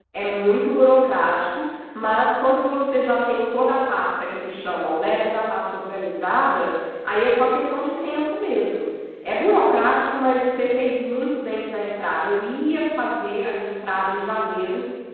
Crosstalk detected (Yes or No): No